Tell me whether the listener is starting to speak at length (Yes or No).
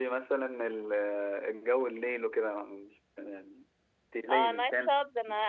Yes